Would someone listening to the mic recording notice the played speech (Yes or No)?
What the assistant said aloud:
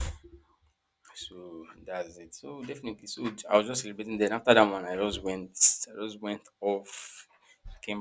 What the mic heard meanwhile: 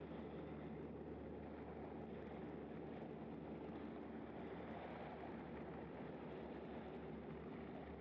No